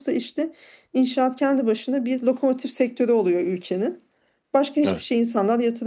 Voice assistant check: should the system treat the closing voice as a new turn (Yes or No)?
No